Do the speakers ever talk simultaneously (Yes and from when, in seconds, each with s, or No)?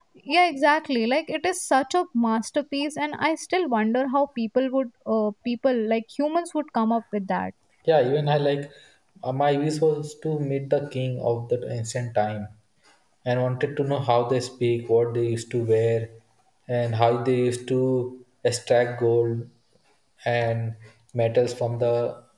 No